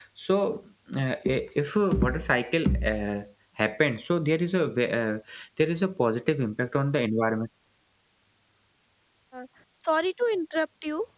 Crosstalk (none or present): none